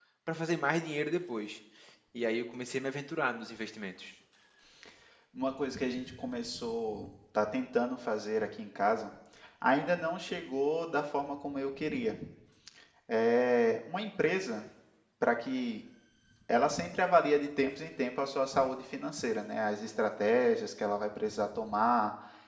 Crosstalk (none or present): none